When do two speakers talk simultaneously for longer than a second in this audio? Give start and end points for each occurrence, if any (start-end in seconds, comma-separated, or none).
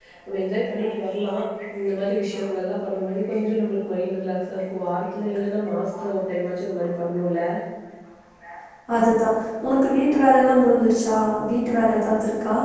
none